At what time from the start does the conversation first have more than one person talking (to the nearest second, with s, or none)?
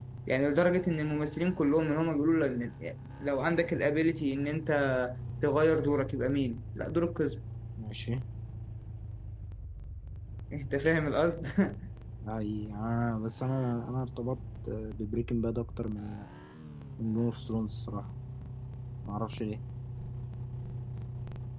none